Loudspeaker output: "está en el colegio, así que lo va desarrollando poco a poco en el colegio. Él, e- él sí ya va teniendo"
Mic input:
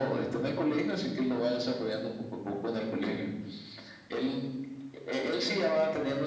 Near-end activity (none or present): none